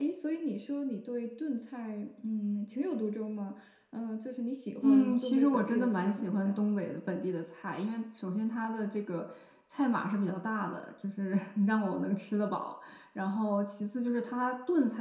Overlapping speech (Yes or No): Yes